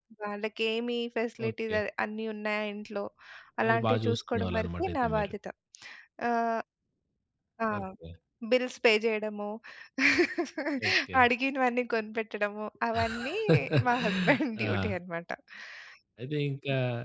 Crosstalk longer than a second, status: present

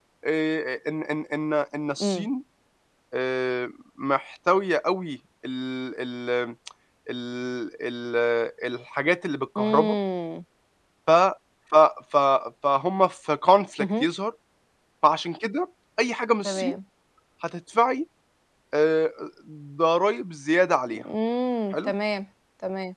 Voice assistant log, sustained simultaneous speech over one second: none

